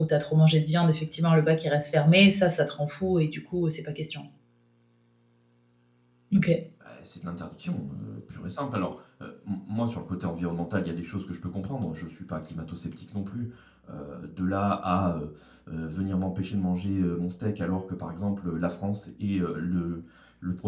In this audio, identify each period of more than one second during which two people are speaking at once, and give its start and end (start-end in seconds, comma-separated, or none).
none